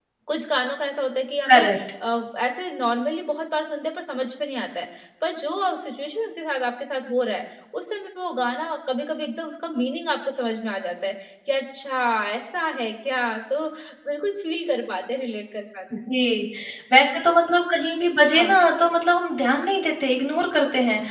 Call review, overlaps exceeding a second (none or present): none